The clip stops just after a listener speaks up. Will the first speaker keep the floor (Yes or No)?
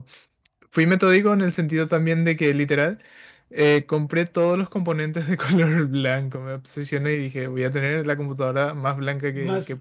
No